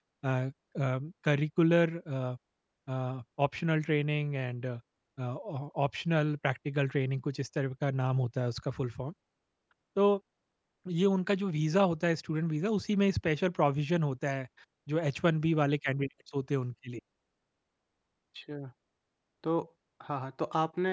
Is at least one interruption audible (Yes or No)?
No